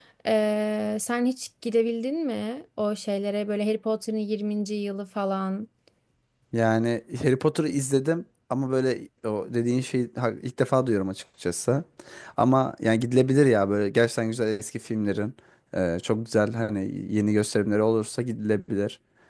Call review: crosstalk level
none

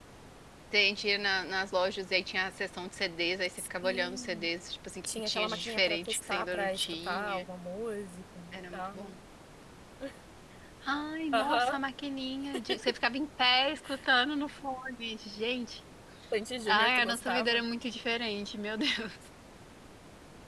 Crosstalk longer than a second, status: present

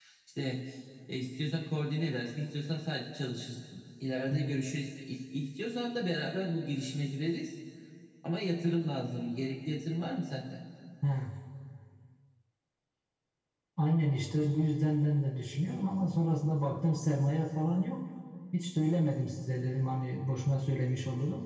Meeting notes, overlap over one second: none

